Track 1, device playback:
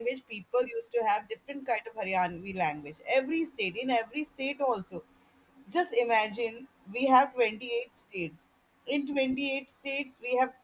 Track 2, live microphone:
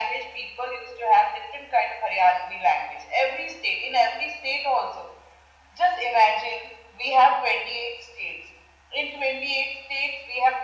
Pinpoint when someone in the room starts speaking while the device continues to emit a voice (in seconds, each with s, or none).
none